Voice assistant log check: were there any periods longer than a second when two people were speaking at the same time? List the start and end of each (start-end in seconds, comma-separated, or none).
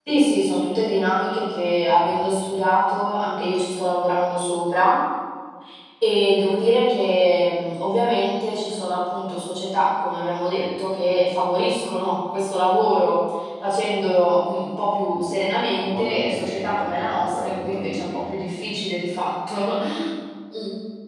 15.9-18.4